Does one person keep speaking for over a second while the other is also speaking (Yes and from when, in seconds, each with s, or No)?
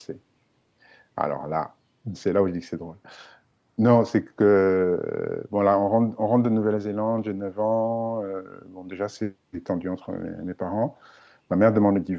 No